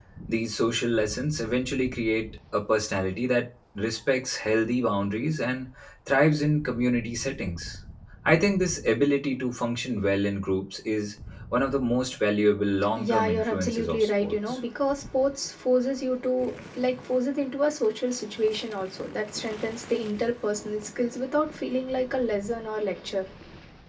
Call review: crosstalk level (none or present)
present